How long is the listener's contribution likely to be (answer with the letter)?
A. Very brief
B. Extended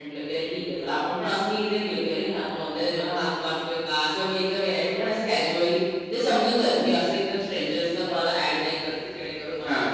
A